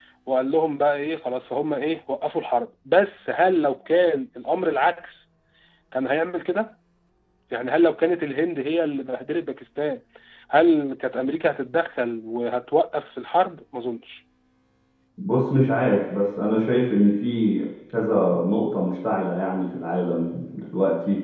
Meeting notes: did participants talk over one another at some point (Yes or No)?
No